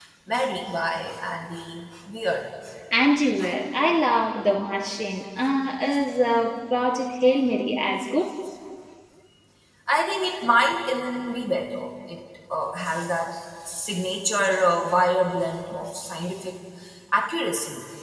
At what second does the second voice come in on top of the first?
none

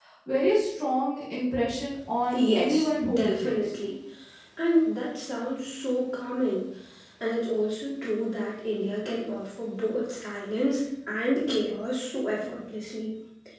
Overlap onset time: 2.3 s

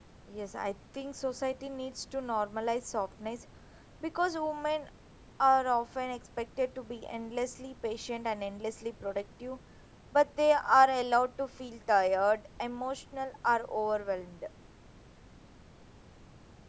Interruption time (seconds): none

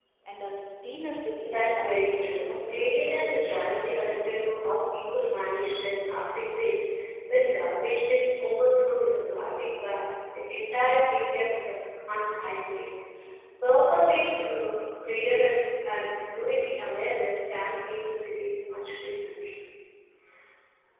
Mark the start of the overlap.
1.4 s

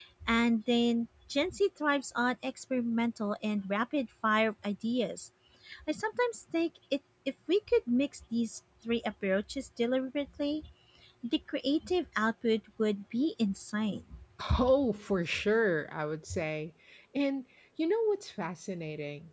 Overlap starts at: none

